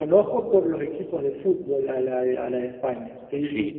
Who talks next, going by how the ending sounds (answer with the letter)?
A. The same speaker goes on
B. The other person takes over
B